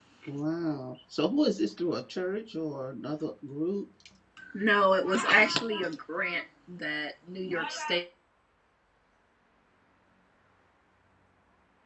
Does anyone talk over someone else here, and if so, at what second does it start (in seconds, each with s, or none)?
none